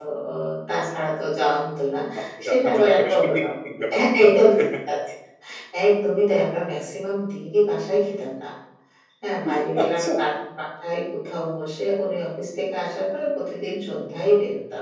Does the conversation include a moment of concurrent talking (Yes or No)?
Yes